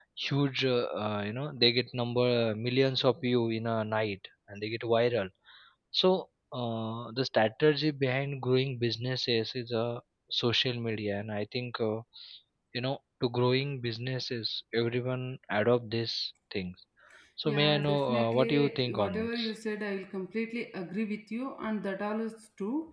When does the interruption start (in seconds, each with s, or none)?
17.4 s